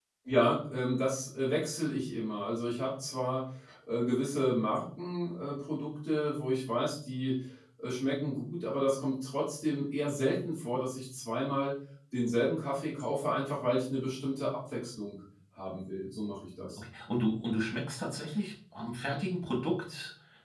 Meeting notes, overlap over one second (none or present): none